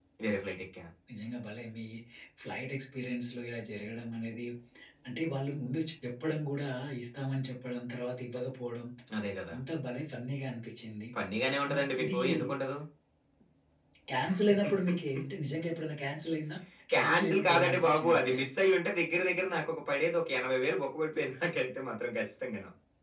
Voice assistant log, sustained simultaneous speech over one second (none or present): present